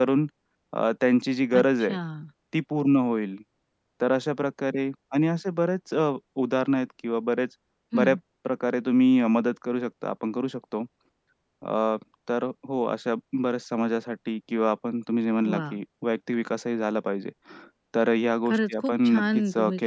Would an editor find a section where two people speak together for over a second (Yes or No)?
Yes